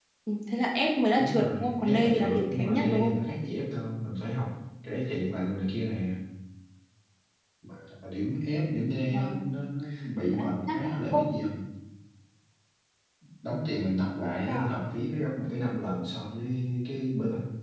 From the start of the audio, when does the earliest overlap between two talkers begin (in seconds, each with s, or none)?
1.2 s